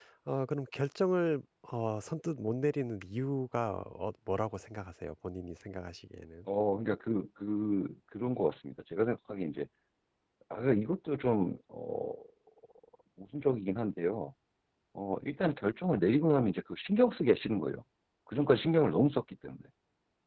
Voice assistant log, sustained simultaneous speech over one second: none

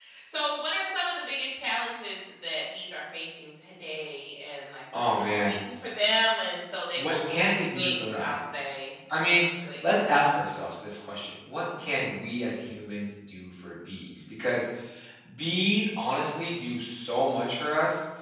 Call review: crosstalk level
present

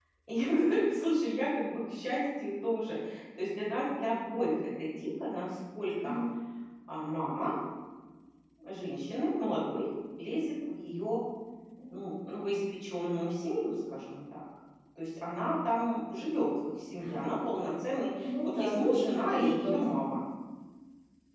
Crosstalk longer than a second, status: present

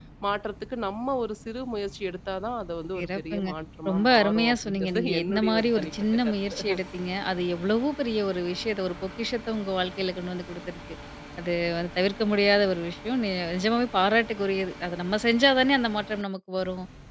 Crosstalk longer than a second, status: present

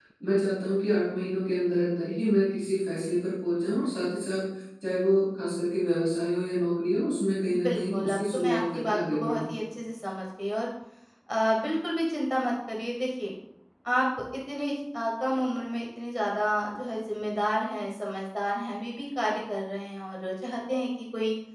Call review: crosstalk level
present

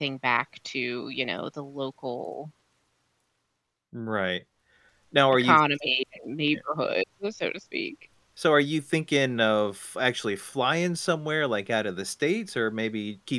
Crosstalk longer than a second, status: none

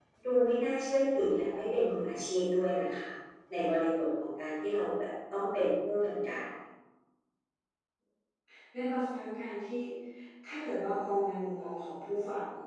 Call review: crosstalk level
none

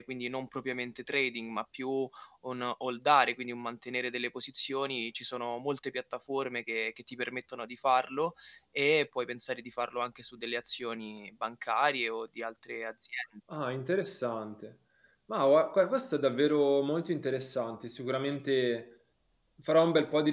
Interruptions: none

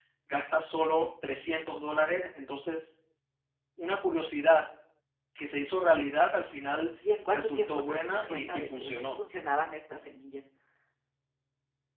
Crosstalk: present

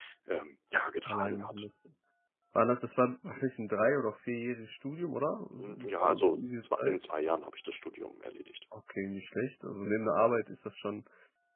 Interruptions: present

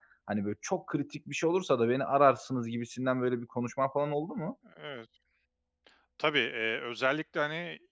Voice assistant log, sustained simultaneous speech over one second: none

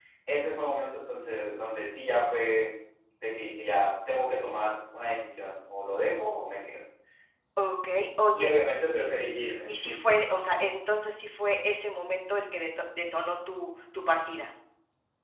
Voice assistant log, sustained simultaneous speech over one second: none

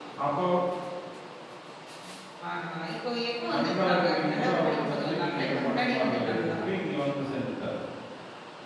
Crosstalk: present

